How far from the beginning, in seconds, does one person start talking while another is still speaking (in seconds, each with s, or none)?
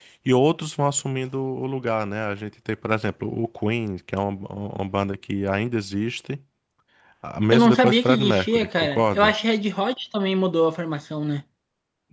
7.5 s